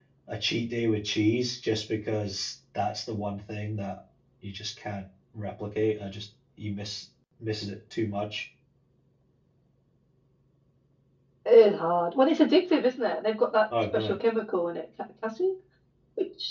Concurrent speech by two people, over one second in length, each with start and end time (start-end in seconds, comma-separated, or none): none